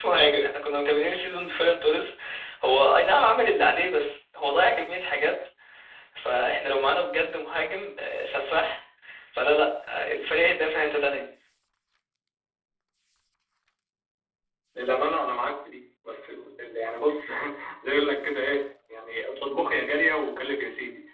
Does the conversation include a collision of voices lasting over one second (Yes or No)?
No